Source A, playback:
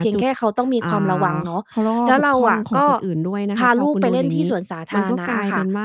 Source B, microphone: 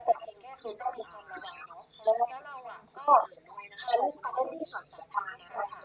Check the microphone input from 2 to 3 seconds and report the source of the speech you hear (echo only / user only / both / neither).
echo only